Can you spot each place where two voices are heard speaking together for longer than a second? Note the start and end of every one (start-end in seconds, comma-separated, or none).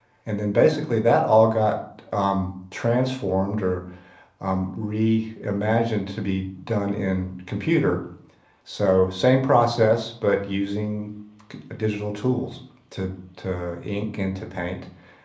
none